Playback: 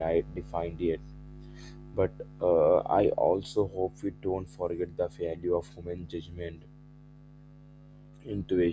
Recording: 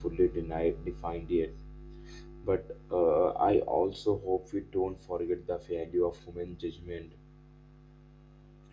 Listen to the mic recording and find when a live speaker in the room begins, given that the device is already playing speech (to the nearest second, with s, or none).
none